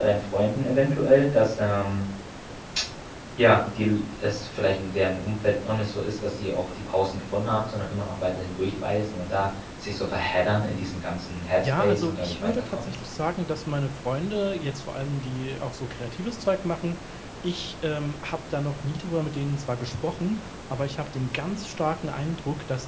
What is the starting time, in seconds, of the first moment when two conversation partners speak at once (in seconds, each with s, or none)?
11.6 s